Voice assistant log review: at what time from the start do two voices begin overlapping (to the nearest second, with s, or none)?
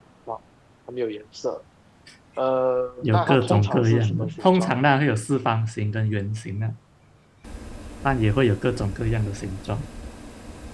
3 s